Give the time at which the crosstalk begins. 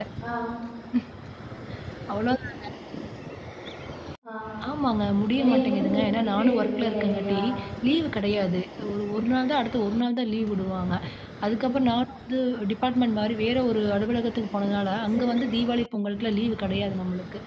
5.4 s

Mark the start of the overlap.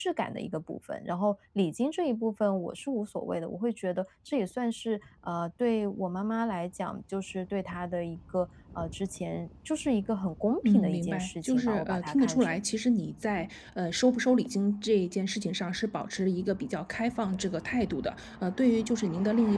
10.6 s

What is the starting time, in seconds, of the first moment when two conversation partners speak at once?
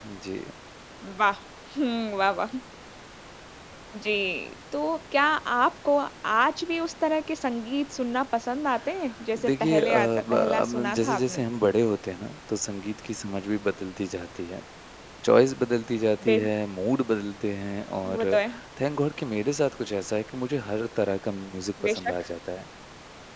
9.5 s

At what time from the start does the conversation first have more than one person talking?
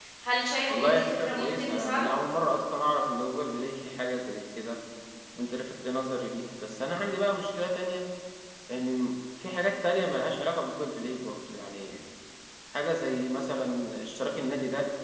0.7 s

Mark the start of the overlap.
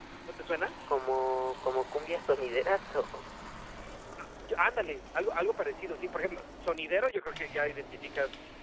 none

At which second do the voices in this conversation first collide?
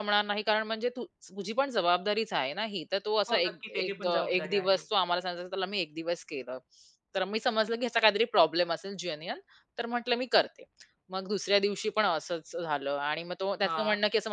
3.3 s

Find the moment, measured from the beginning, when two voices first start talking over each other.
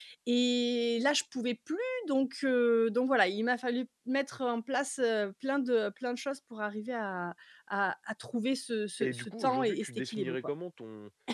9.0 s

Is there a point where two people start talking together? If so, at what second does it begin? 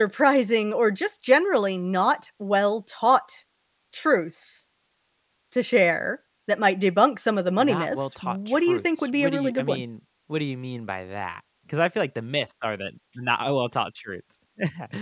7.6 s

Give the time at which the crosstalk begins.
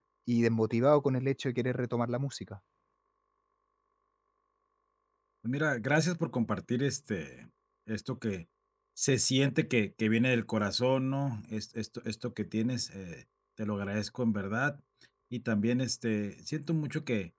none

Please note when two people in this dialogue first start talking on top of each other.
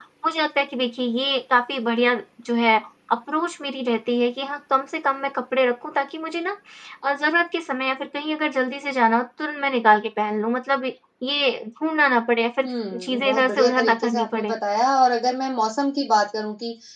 13.0 s

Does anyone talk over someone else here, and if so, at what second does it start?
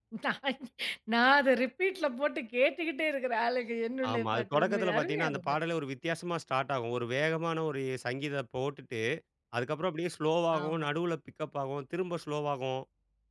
4.1 s

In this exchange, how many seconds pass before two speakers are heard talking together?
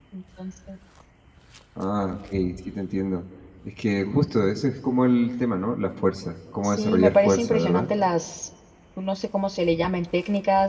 6.6 s

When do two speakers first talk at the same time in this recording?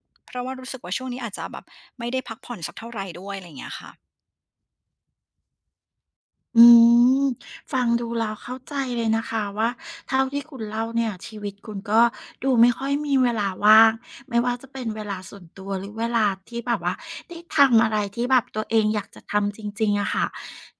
none

